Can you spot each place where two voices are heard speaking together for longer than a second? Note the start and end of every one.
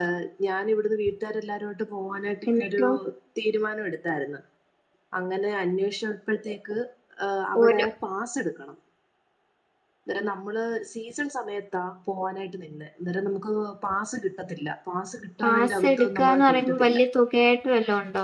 15.4-17.0

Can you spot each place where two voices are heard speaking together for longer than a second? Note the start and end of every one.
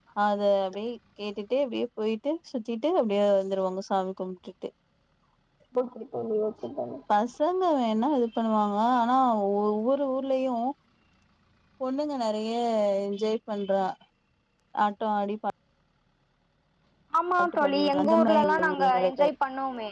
17.4-19.3

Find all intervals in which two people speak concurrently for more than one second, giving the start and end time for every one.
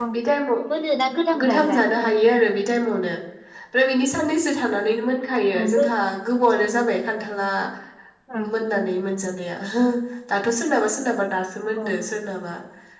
none

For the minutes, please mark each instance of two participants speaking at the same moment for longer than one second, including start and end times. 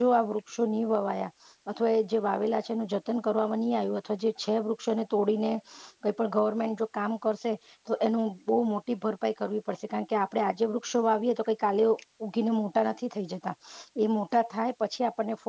none

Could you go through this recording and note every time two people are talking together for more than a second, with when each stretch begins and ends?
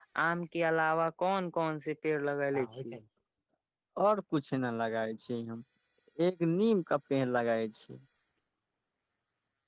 none

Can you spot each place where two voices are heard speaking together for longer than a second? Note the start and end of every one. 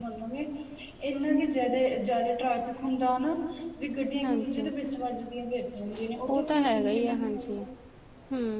6.3-7.5

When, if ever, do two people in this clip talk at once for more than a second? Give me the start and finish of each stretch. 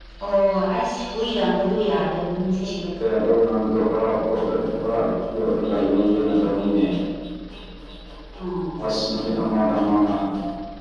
none

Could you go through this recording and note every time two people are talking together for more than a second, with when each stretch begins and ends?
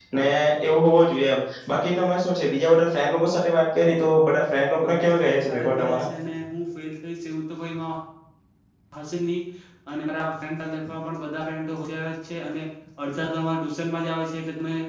4.8-6.1

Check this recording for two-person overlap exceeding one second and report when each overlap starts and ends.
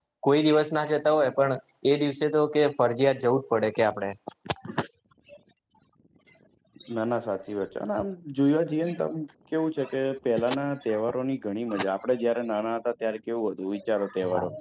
none

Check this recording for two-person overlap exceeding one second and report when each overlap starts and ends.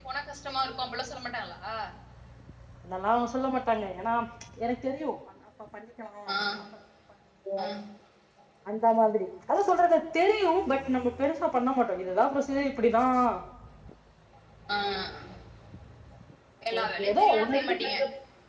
16.8-18.0

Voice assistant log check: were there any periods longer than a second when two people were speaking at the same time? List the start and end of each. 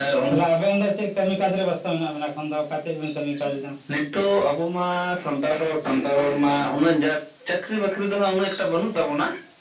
none

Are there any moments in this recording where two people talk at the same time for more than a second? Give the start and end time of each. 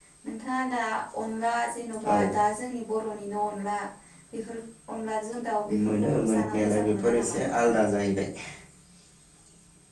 5.9-7.7

